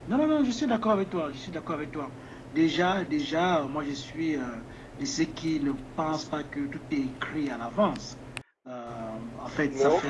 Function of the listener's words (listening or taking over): listening